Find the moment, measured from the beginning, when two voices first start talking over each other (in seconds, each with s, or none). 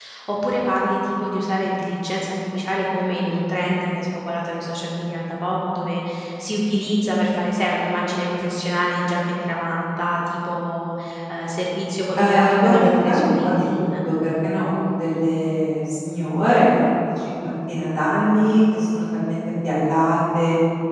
12.1 s